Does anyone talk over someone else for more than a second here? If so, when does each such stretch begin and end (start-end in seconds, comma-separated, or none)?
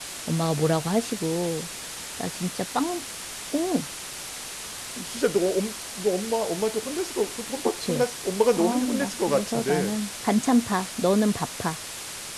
8.6-10.0